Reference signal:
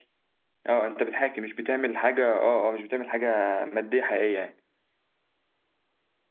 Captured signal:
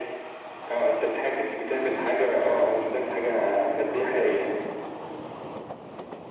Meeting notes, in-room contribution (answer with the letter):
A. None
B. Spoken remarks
A